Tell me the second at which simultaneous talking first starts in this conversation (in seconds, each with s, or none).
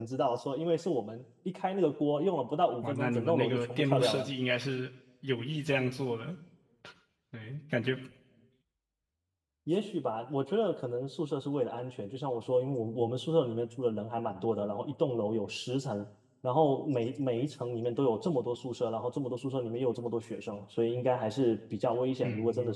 2.8 s